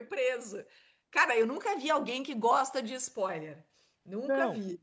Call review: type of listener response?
taking over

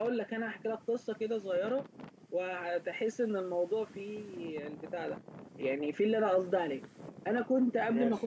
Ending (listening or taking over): listening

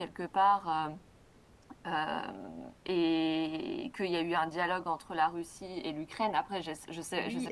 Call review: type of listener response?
taking over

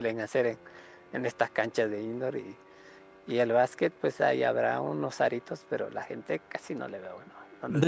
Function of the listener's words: taking over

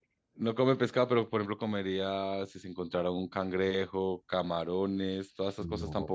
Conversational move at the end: taking over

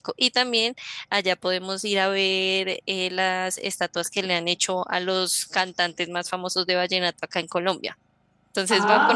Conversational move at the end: taking over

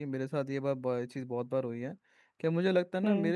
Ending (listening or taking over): listening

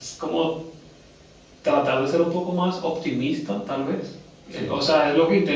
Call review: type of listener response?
listening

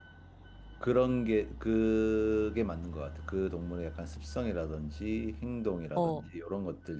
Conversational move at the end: listening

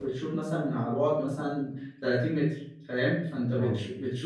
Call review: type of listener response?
listening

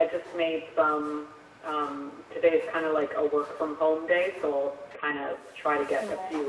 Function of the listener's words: listening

